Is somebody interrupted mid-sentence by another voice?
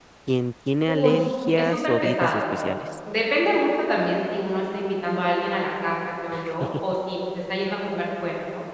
Yes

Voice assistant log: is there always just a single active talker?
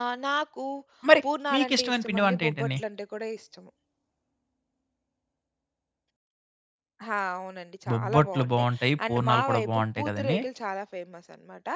No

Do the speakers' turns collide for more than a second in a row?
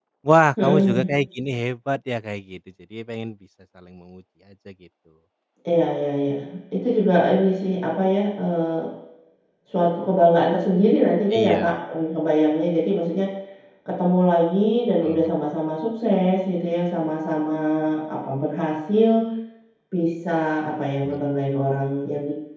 No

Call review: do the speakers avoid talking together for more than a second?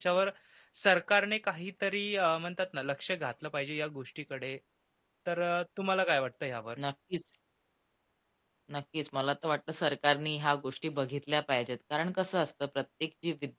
Yes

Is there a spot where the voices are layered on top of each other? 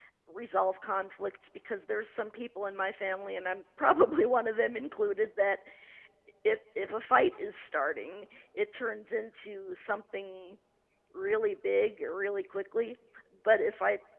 No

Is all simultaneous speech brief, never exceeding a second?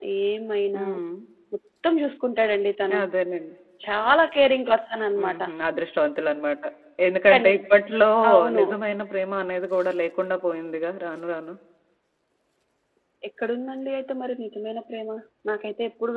Yes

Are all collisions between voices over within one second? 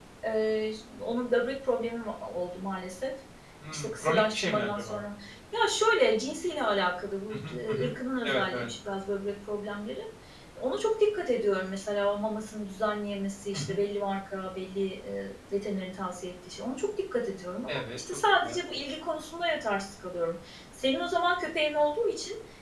No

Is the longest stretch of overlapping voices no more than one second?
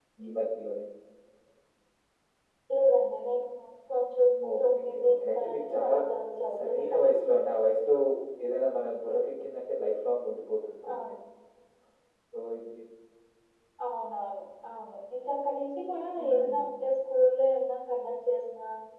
No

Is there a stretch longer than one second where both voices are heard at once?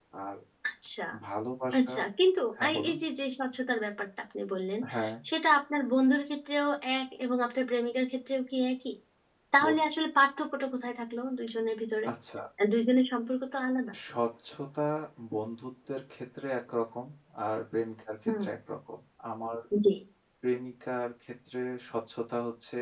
No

